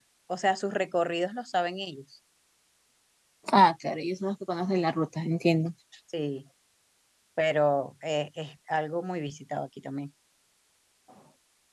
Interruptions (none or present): none